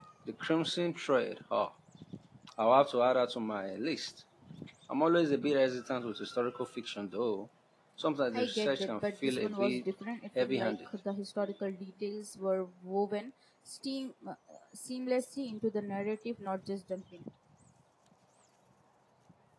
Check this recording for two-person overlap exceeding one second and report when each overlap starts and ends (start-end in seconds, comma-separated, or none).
8.3-9.8